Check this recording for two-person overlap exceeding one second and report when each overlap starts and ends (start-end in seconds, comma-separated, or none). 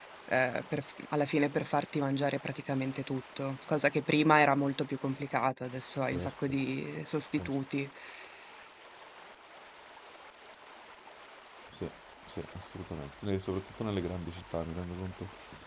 none